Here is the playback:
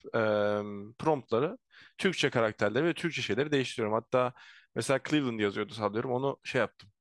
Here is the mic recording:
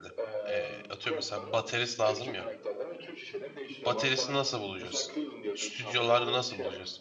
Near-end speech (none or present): present